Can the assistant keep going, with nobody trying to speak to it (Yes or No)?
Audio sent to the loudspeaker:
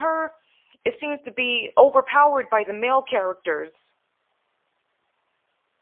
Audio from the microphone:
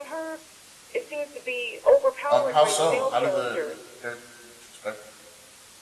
No